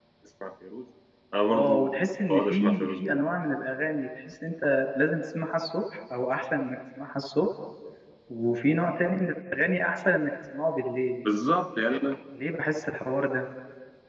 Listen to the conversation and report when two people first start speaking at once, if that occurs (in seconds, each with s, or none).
1.5 s